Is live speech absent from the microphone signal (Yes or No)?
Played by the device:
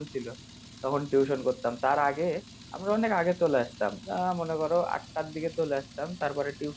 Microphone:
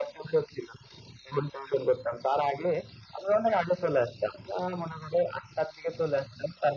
Yes